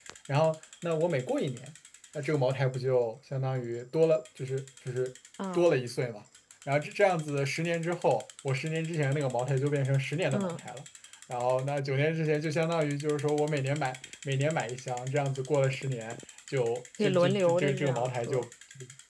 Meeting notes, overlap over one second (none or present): present